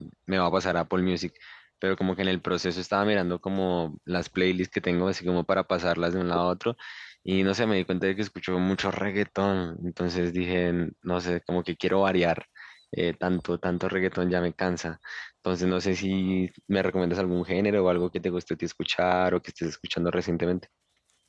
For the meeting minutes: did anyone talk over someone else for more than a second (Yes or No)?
No